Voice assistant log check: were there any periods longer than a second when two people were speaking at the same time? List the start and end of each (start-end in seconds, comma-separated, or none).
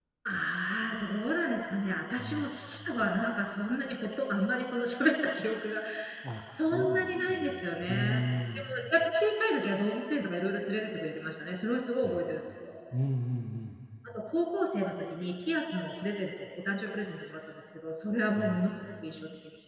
6.7-8.1